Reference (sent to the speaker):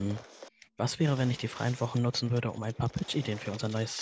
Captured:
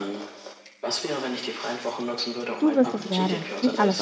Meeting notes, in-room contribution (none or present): present